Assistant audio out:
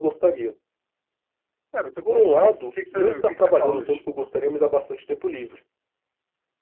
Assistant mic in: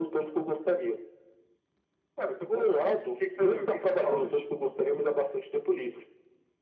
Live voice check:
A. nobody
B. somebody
A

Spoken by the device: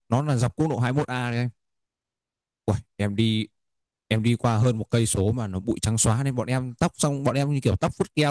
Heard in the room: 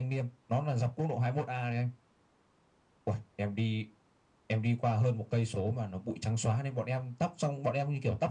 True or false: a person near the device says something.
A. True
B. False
B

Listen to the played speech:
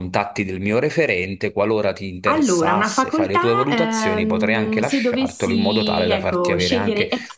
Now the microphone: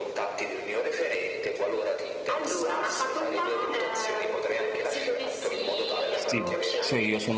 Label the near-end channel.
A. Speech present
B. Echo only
A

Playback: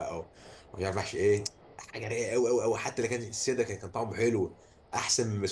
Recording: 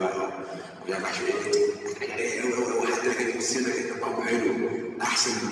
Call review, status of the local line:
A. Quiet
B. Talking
A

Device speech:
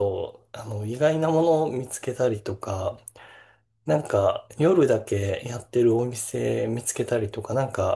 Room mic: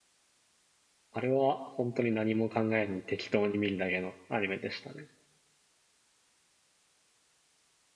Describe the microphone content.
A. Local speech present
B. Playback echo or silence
A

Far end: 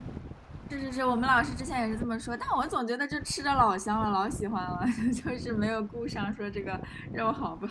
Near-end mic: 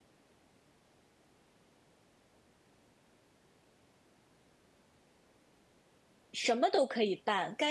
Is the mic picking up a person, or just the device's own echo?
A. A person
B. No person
A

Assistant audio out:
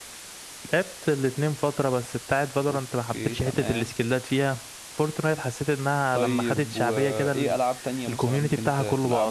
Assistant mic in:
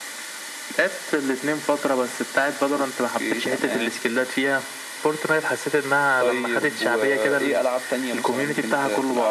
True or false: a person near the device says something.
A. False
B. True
A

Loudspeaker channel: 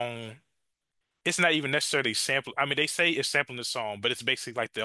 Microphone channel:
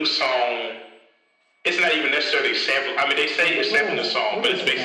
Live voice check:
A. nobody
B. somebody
B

